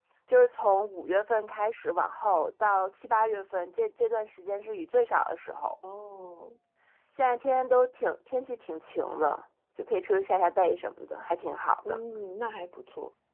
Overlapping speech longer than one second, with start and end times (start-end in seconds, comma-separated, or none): none